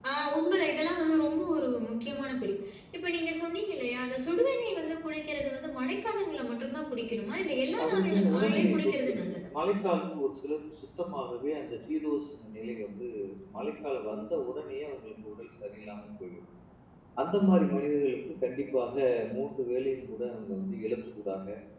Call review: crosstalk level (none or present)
present